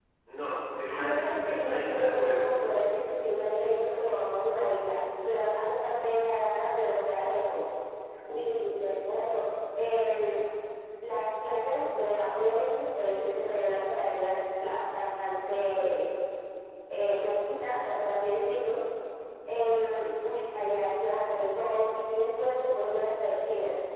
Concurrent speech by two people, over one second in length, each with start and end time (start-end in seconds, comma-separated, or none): 0.9-2.5